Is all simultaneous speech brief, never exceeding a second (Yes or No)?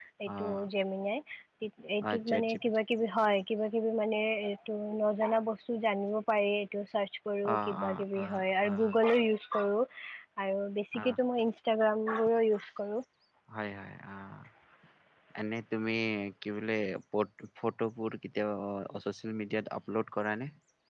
No